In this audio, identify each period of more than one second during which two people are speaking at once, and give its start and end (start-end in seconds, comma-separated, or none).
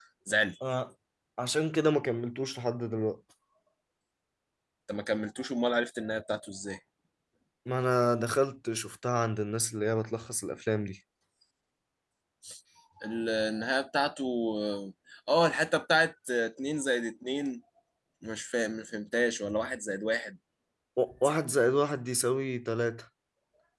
none